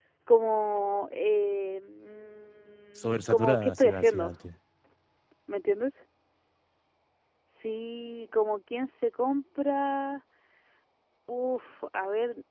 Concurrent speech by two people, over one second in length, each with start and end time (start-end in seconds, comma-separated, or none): 3.0-4.3